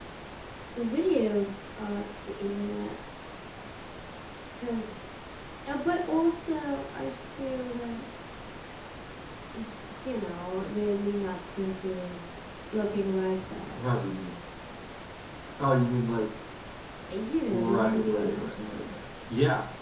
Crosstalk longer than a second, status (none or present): present